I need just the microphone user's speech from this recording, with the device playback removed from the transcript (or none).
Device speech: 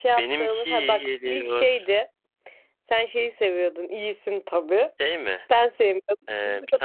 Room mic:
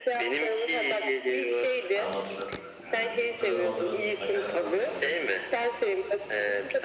Tamam hatırladım. kanka. Ha, Hatırladım hatırladım. Nakaratta hatırladım.